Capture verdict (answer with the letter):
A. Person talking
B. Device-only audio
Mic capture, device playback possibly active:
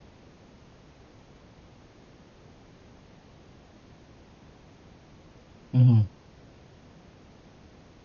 A